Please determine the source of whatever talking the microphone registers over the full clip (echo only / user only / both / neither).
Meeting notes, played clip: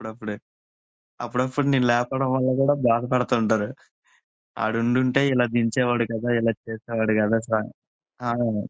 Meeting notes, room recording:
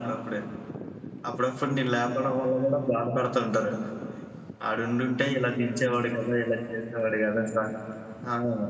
echo only